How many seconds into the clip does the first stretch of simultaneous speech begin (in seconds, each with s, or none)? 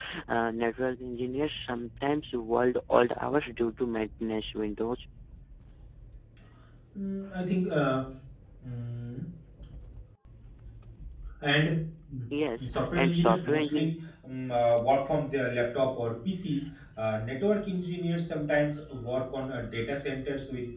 12.7 s